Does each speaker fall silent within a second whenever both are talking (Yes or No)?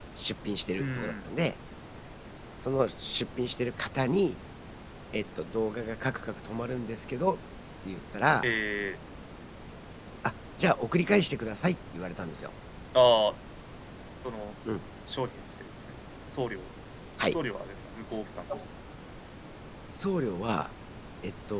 Yes